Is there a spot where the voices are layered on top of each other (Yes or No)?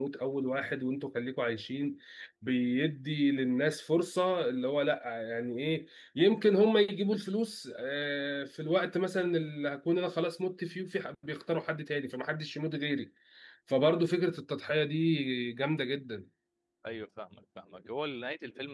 No